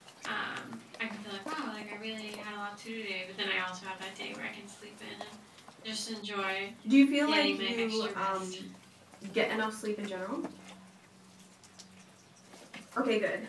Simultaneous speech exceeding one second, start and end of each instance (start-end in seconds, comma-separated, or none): 7.2-8.6